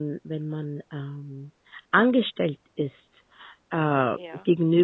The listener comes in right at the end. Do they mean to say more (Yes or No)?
No